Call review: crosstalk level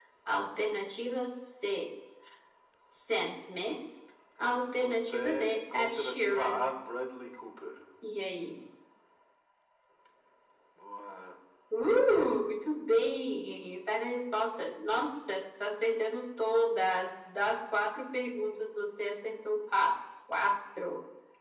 present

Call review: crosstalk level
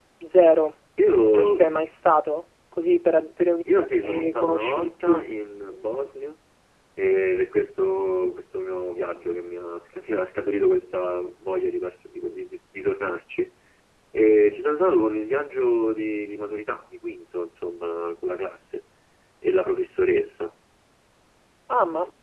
present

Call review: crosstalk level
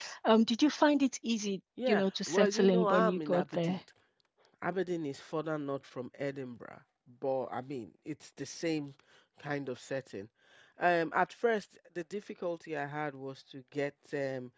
present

